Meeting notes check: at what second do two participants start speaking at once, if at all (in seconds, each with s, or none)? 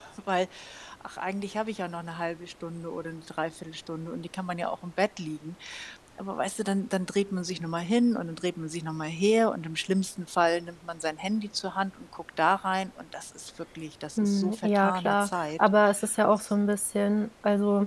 14.2 s